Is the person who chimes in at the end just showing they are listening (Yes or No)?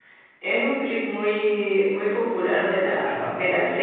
Yes